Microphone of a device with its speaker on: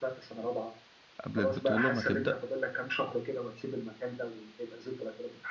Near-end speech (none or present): present